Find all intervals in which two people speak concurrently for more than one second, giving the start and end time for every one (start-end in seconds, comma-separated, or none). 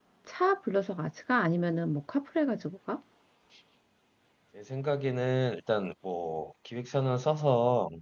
none